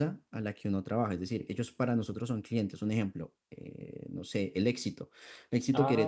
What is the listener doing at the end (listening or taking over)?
taking over